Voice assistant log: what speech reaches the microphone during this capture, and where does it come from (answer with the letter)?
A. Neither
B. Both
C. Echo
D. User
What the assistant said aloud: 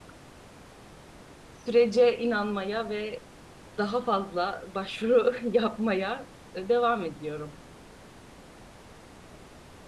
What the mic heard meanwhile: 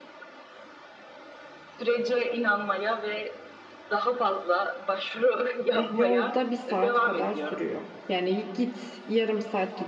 B